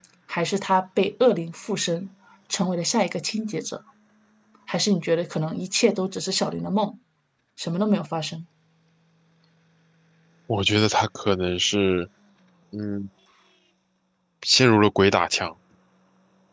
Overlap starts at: none

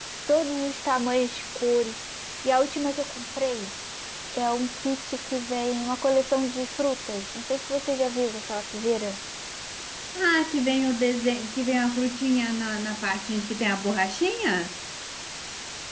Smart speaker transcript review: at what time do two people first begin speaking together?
none

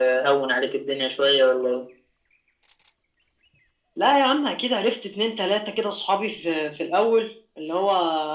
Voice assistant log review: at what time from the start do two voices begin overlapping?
none

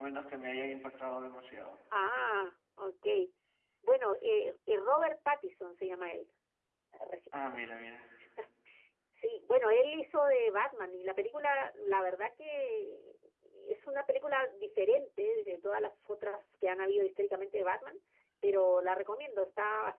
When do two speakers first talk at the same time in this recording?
none

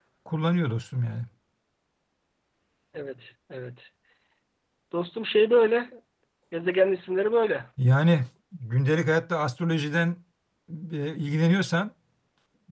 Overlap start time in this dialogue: none

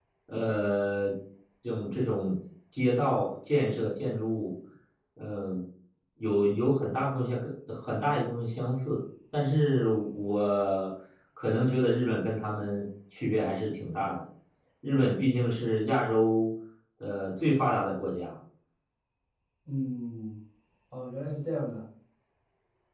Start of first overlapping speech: none

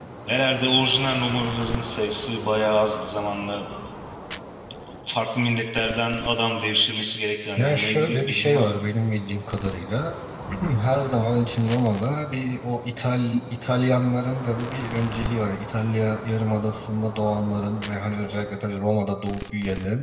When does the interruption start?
7.6 s

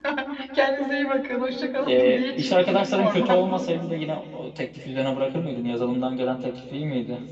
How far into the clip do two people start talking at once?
1.8 s

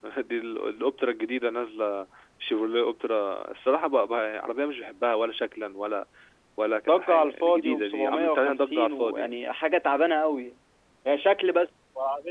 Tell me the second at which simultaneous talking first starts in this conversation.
6.9 s

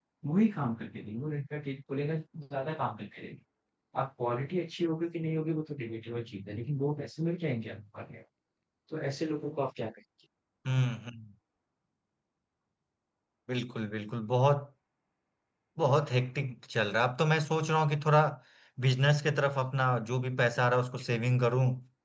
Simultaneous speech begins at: none

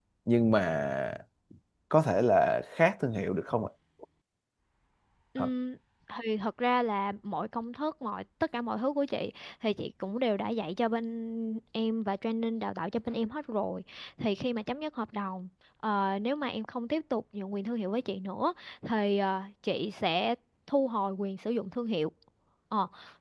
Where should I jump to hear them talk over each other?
none

